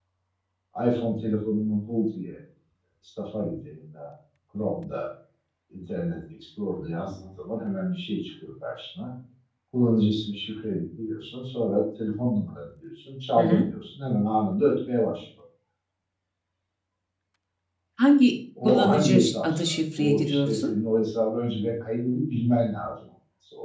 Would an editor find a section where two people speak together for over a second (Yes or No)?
Yes